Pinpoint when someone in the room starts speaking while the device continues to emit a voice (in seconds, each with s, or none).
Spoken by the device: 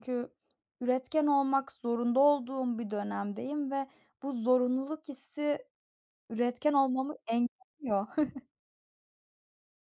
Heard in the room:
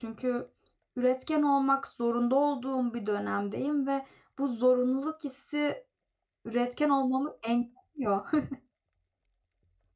none